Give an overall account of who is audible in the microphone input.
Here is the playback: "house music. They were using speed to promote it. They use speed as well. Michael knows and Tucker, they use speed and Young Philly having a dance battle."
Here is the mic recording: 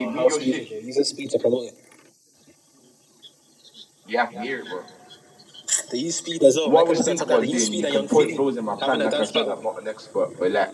both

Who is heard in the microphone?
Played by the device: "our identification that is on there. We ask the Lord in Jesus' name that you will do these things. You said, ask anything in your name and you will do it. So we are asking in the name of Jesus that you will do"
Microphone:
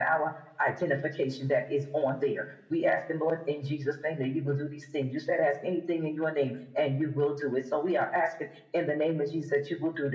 echo only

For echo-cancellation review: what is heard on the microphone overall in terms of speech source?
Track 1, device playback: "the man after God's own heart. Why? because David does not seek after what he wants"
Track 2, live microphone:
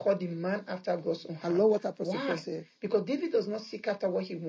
both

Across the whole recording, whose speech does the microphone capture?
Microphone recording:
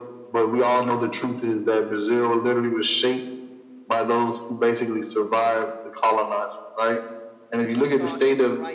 both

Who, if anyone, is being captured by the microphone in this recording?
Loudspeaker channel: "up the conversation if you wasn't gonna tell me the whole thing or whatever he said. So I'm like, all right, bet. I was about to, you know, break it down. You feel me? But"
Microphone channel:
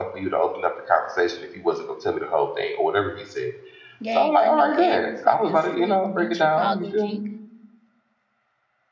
both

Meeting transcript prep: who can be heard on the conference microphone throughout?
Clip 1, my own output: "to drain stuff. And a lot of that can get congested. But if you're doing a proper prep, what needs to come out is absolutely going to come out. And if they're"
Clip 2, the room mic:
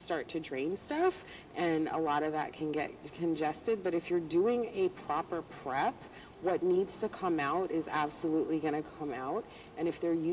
echo only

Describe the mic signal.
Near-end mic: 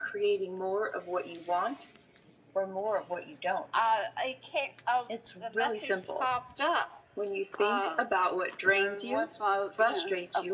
echo only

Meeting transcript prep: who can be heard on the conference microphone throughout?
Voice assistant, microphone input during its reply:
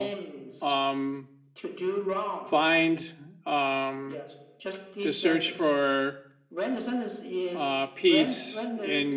both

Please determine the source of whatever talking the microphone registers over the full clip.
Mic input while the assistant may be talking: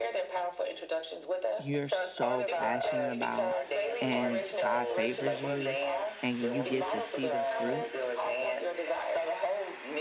both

